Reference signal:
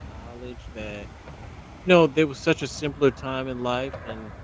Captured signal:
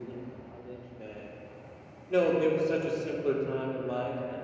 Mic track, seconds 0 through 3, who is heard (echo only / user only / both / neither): echo only